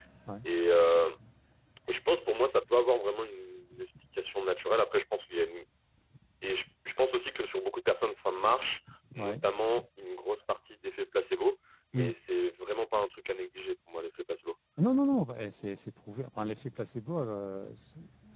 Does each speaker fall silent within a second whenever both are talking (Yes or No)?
Yes